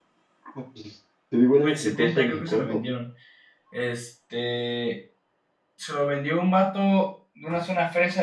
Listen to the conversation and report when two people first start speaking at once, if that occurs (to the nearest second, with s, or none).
2 s